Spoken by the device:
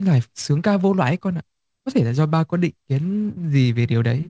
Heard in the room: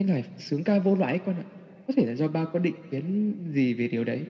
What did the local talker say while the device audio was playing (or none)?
none